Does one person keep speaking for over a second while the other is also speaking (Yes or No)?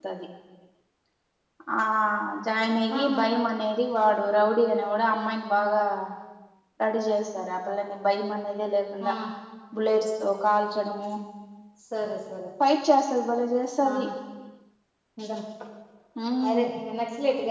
No